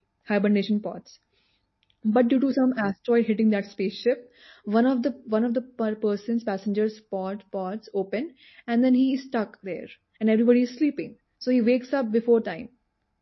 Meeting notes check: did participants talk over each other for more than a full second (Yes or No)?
No